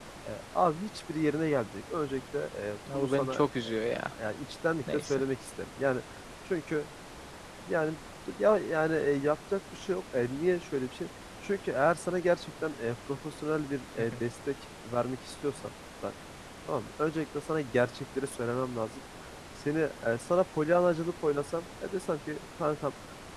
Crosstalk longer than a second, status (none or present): none